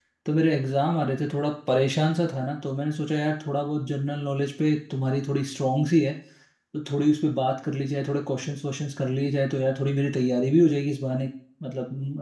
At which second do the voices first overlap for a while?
none

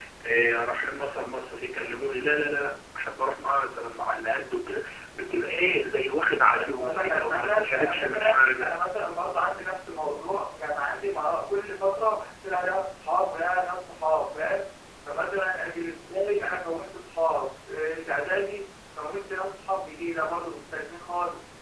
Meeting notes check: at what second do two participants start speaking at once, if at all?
6.5 s

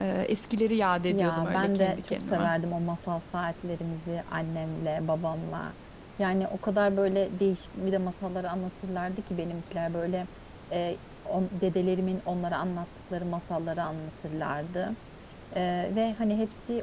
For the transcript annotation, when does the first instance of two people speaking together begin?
1.1 s

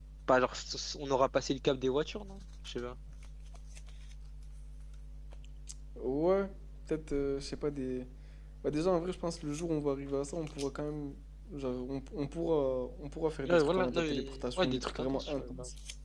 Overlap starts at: 13.5 s

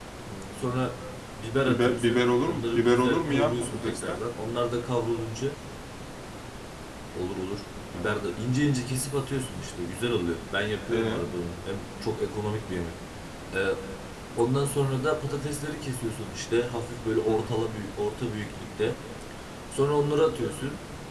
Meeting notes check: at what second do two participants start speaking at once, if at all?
1.7 s

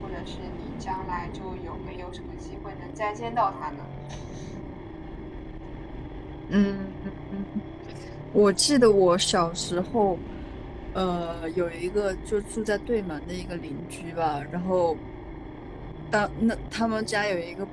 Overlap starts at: none

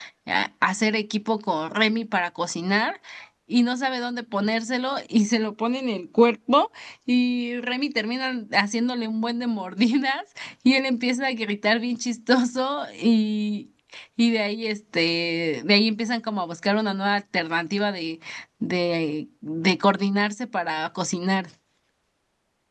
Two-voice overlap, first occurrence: none

